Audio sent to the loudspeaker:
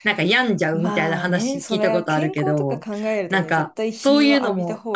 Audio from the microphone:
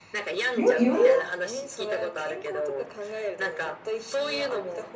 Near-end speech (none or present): present